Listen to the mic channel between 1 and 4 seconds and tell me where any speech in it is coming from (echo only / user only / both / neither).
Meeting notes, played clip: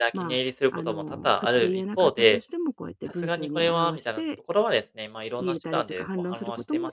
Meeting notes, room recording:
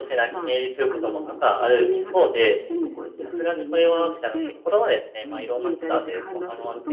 echo only